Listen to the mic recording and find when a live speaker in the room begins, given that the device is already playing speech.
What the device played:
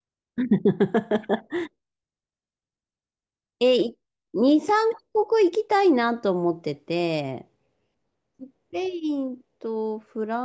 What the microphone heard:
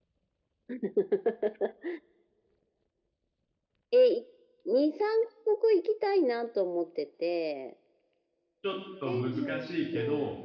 9 s

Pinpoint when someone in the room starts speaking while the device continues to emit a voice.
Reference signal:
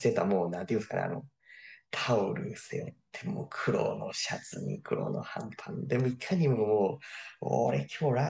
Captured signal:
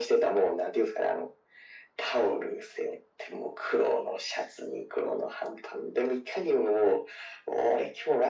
none

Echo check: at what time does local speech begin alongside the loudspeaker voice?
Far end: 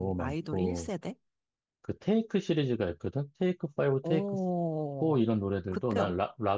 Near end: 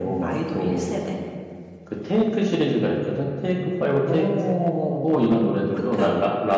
none

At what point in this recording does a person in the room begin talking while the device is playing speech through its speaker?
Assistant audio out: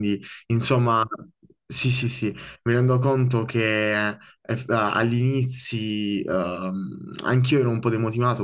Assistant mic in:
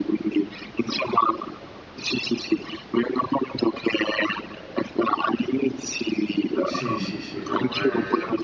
7 s

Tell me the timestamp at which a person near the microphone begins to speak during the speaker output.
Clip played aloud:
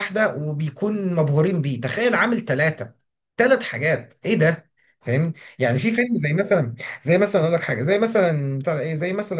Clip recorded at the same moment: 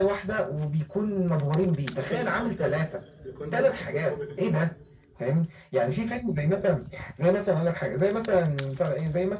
2 s

